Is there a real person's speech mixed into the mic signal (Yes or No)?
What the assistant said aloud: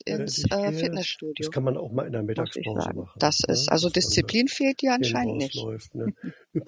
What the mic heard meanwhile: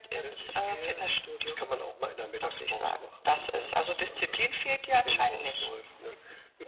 No